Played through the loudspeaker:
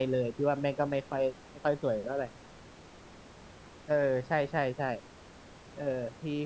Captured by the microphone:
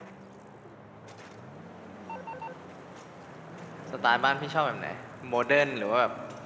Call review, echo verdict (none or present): none